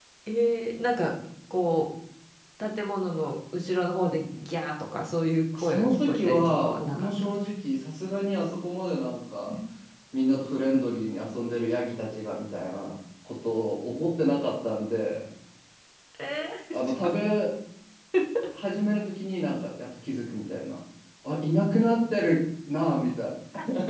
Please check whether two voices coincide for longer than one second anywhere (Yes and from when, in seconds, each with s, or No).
Yes, from 5.6 s